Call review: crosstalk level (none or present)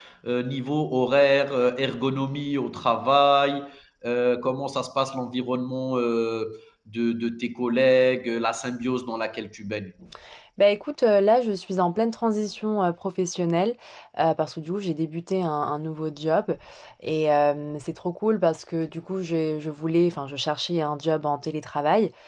none